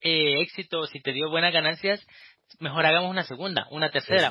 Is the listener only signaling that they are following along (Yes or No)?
Yes